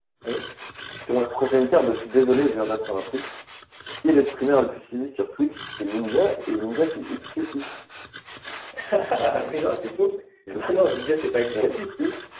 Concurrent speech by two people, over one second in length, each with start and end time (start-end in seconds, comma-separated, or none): none